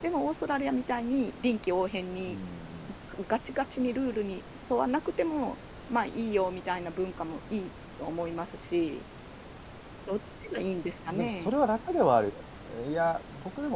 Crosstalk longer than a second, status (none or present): none